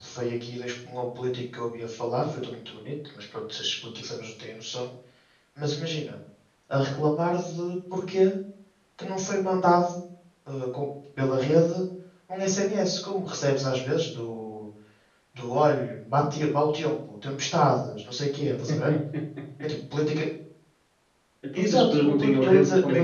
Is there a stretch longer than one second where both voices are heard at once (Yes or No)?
Yes